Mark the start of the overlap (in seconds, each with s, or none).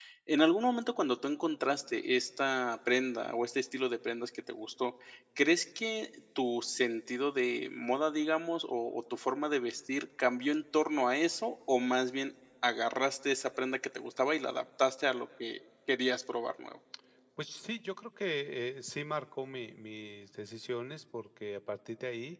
none